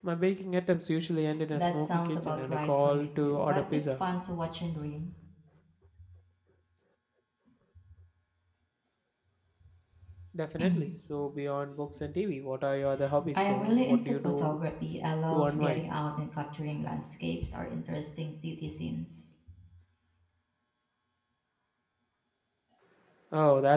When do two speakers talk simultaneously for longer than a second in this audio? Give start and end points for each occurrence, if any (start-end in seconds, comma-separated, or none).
1.5-3.9, 13.3-14.6